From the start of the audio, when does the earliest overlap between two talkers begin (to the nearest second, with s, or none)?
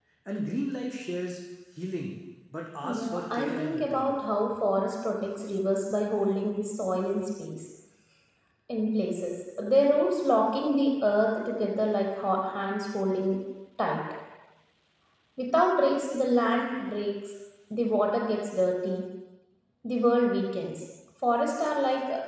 3 s